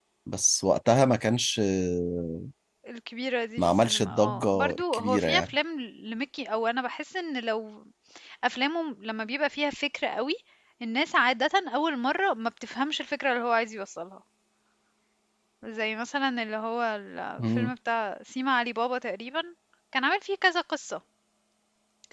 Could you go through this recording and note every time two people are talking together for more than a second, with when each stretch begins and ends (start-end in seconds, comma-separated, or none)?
3.6-5.5